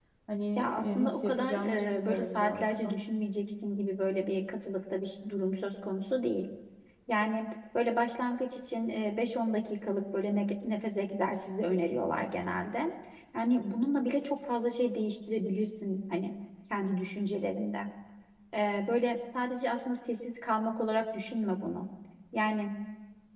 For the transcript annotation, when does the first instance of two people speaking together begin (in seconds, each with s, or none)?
0.6 s